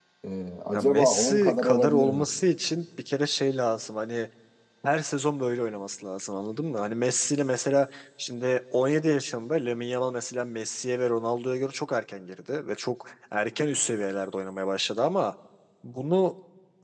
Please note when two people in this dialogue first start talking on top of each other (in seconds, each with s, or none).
0.7 s